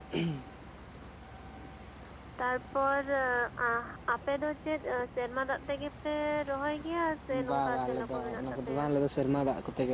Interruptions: present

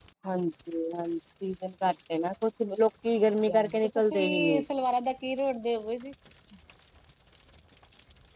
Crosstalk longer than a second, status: present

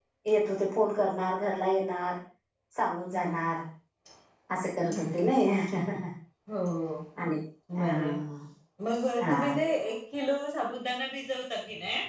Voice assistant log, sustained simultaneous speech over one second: none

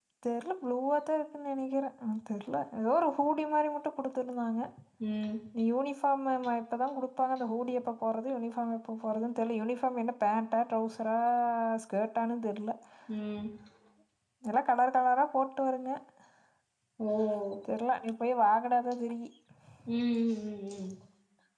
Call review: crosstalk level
none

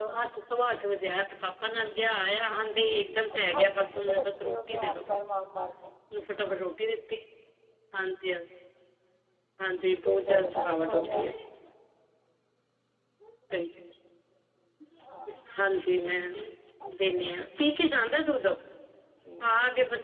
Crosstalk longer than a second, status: present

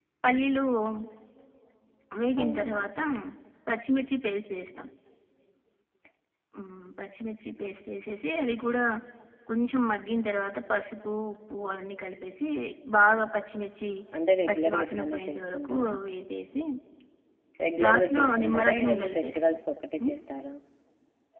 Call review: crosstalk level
present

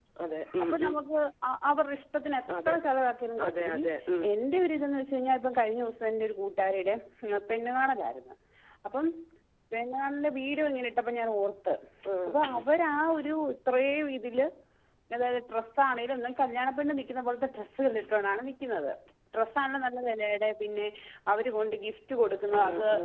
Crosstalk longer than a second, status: none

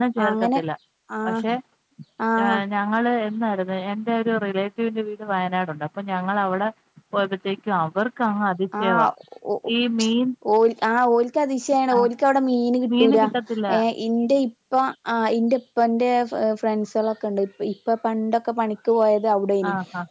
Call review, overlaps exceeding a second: none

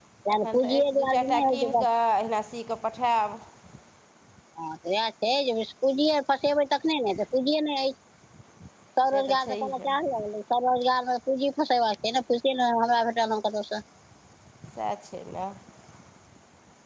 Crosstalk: present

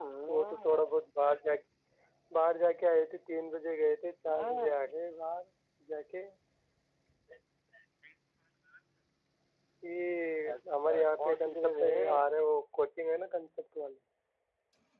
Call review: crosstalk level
present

